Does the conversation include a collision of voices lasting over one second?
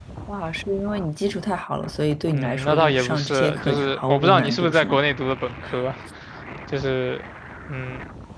Yes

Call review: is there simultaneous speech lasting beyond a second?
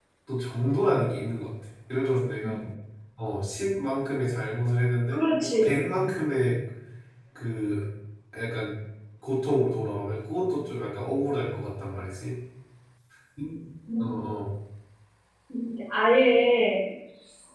No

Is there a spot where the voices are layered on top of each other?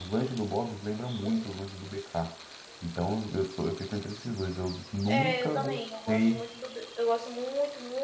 Yes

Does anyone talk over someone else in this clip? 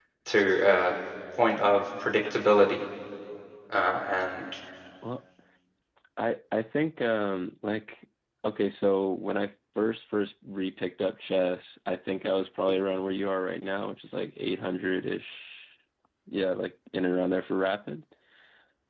No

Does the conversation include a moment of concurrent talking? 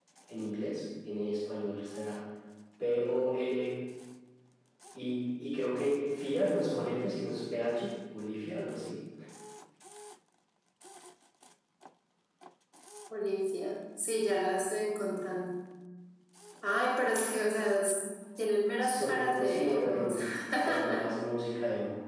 Yes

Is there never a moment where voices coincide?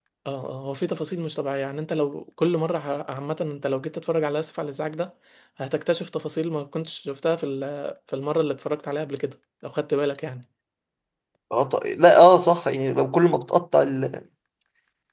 Yes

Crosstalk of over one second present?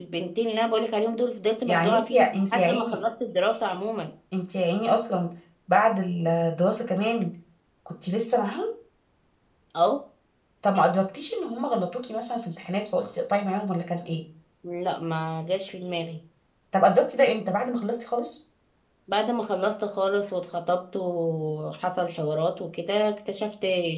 Yes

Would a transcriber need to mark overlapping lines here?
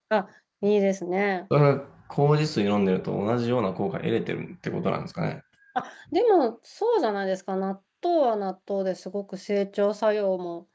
No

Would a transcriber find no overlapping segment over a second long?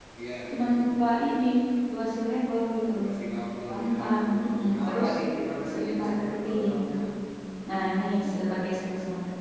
No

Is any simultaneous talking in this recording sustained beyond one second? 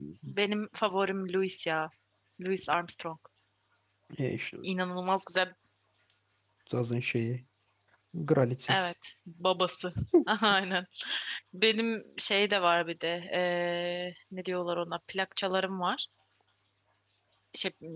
No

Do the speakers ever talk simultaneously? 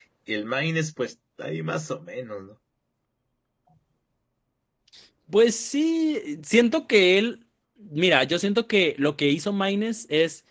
No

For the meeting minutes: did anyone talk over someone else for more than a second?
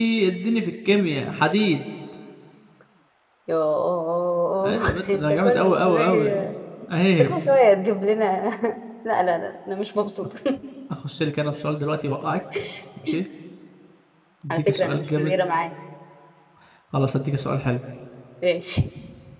Yes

